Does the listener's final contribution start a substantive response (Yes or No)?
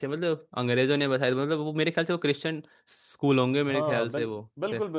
Yes